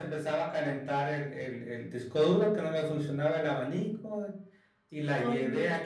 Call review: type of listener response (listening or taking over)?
listening